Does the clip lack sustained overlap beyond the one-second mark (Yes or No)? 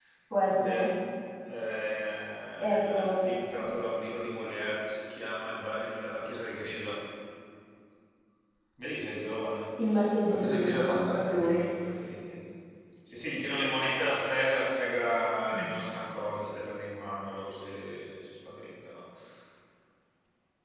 No